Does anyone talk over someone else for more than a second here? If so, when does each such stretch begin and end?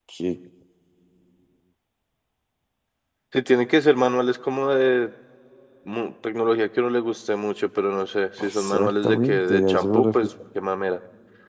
8.4-10.2

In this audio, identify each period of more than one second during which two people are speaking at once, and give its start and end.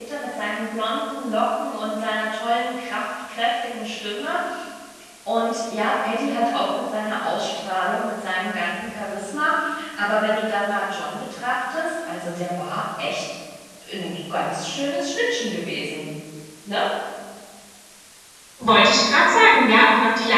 none

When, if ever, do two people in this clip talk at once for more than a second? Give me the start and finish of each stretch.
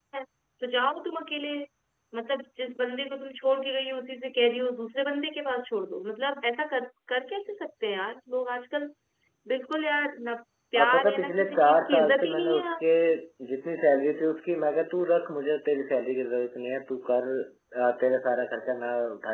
10.8-12.7

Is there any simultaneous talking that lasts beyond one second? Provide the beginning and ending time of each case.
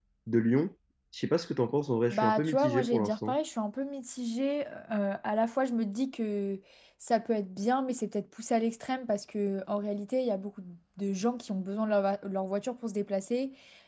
2.1-3.4

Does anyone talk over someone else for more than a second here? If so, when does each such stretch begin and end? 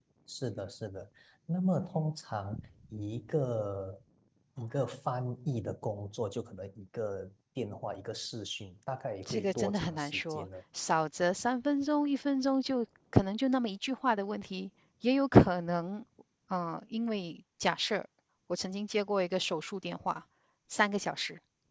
9.3-10.5

